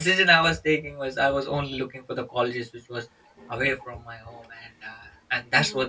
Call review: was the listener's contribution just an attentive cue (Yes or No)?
No